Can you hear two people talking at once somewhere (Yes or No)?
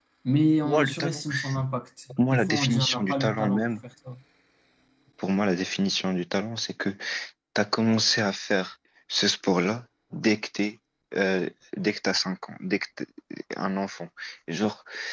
Yes